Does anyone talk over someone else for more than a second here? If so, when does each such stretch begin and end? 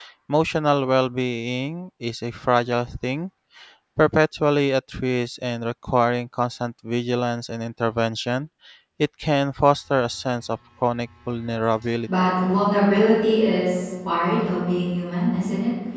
none

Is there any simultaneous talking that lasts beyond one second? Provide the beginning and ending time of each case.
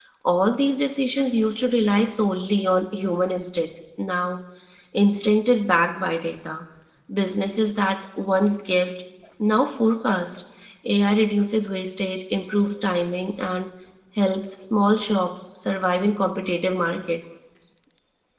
none

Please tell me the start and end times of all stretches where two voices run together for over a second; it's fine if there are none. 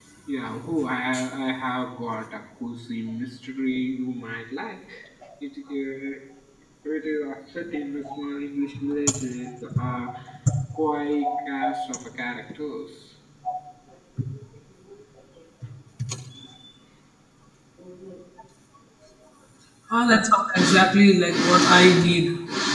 none

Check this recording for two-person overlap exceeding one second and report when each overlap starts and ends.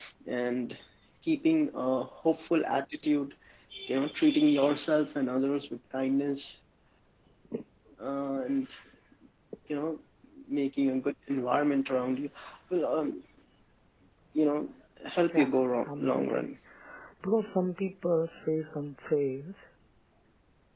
15.3-16.5

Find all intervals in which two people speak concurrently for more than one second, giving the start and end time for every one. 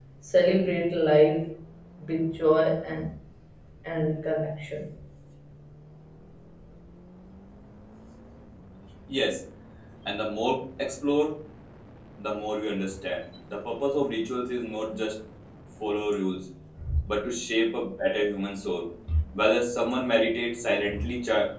none

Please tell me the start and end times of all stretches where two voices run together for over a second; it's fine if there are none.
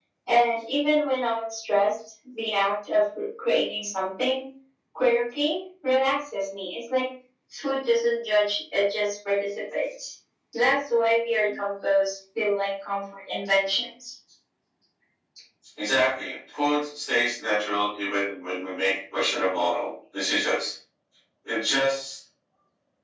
none

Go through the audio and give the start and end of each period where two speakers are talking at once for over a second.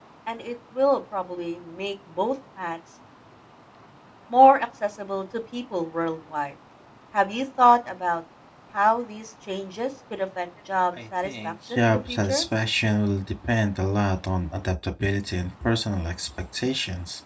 11.2-12.4

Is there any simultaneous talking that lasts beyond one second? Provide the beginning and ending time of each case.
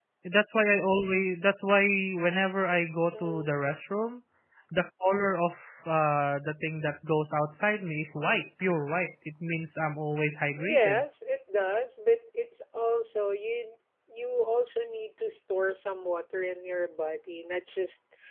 none

